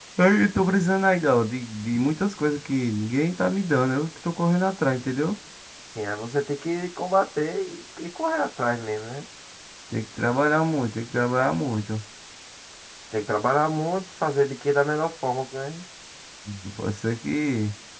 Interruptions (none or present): none